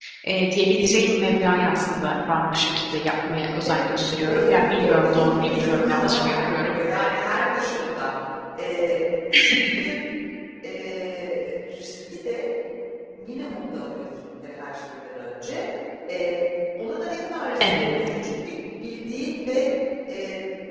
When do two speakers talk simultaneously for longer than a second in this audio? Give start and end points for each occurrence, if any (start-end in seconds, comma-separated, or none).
4.2-6.7